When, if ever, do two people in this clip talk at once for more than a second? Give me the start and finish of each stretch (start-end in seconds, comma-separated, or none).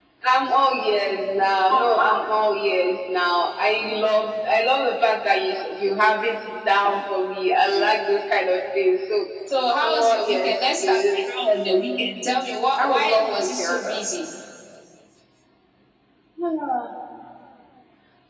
9.8-11.3, 12.8-14.0